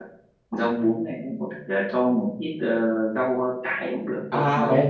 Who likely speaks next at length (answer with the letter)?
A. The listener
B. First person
A